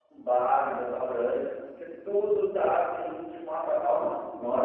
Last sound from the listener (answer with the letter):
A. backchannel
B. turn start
B